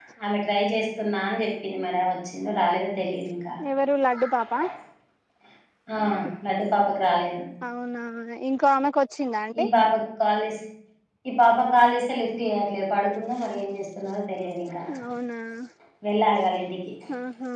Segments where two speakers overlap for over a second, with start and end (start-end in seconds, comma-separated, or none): none